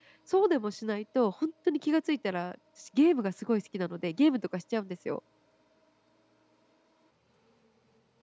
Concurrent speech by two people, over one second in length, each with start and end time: none

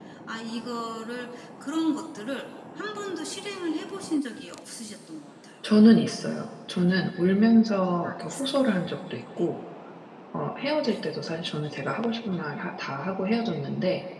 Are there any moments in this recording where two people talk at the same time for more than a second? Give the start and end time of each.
none

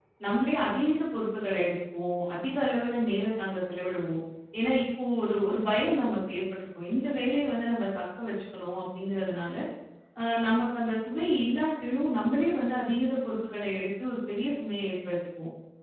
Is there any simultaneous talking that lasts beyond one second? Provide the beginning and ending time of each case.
none

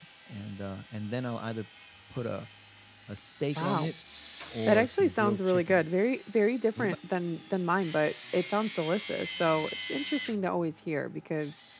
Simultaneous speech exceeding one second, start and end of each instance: 4.6-5.8

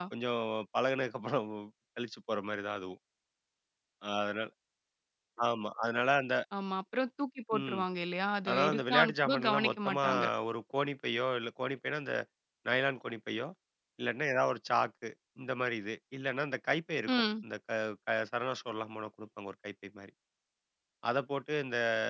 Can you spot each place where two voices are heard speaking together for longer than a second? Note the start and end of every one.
8.5-10.0

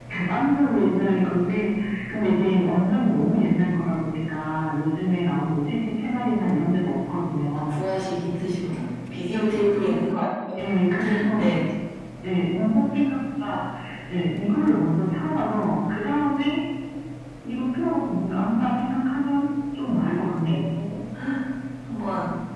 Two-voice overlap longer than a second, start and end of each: none

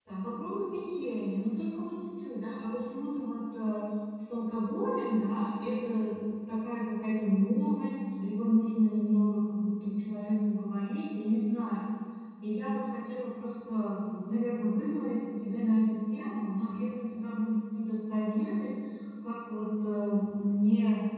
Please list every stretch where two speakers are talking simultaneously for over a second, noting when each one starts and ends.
none

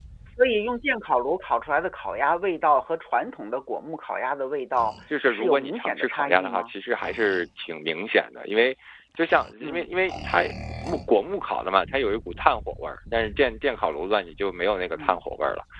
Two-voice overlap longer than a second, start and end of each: 5.3-6.7

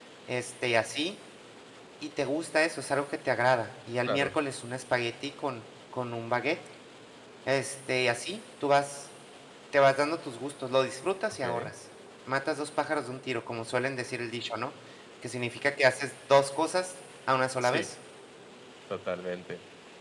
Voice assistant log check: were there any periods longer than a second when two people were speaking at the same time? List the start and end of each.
none

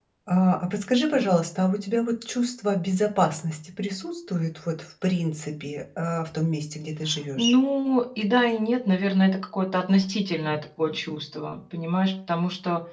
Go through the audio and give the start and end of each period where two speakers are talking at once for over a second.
none

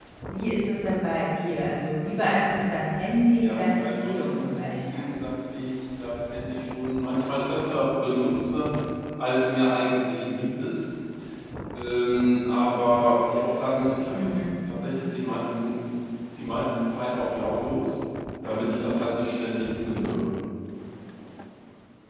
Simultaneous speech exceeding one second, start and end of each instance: 3.4-5.0

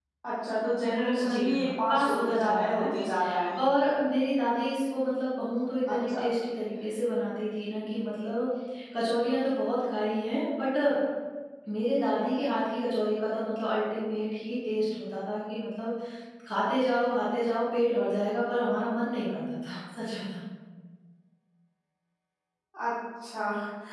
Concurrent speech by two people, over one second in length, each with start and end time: 1.3-2.9

